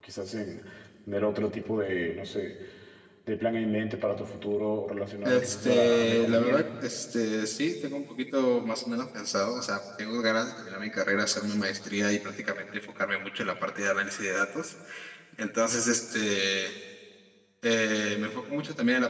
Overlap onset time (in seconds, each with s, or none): 5.2 s